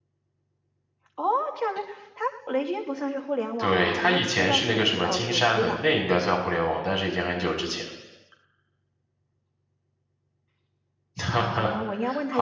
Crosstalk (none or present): present